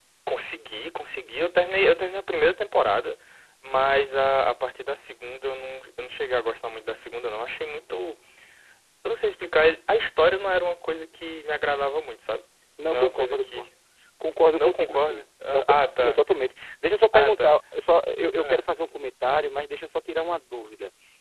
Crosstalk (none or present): present